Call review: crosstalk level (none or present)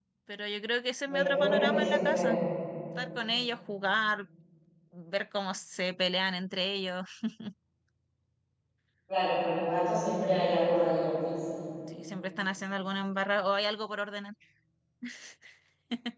present